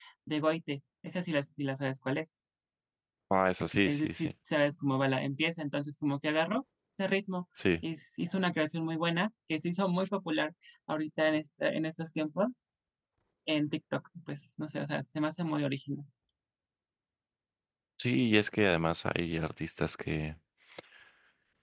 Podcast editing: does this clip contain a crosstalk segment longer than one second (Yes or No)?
No